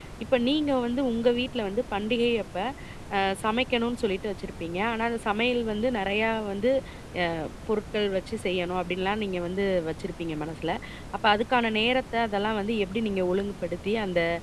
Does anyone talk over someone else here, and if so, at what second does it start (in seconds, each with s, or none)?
none